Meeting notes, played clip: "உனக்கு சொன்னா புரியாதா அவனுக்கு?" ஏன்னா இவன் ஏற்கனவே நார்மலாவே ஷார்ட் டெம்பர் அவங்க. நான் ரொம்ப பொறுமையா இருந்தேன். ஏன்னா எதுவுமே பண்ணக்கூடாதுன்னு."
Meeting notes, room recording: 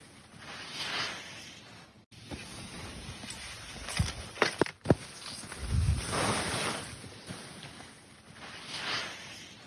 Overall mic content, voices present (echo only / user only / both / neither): neither